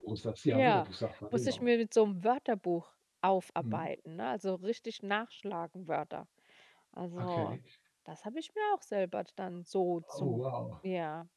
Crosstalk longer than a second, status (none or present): none